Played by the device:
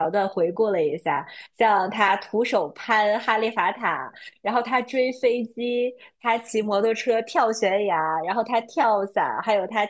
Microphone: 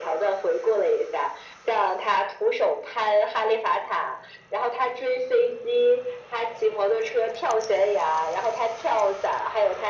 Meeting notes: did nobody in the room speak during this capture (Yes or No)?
Yes